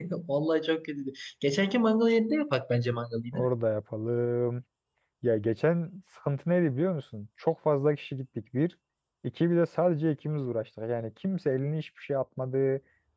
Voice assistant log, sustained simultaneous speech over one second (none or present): none